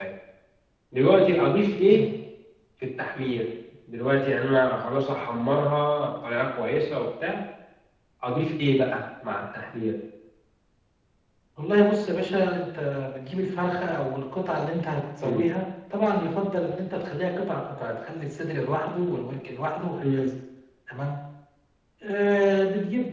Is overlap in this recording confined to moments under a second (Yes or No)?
Yes